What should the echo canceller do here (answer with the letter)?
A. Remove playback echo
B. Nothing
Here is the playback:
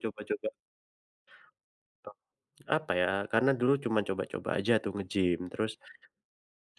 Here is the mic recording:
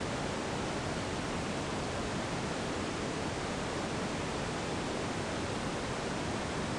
B